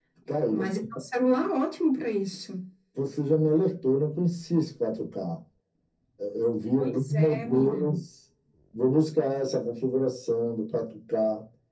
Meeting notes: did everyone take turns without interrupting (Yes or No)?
No